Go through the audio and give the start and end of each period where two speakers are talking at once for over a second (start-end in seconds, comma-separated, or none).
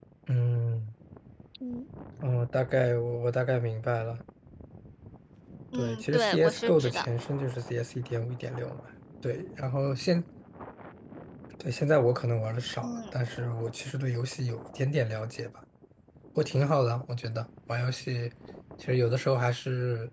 5.7-7.0